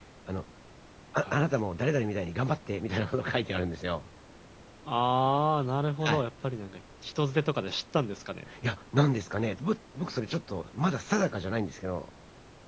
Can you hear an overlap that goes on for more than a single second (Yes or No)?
No